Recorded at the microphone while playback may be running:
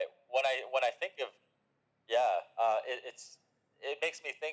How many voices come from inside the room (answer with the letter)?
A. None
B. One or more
A